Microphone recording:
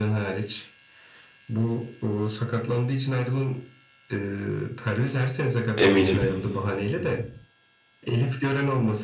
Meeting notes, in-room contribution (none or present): present